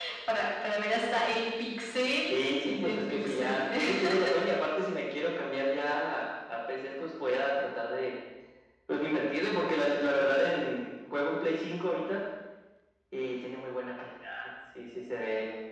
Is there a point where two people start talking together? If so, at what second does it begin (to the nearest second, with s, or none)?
2 s